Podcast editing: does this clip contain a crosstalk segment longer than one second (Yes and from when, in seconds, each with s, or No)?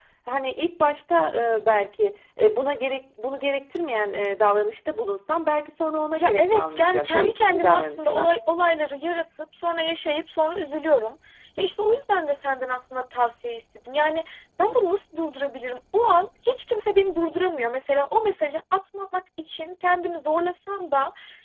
Yes, from 6.2 s